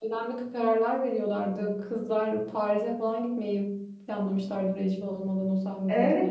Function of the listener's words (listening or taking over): taking over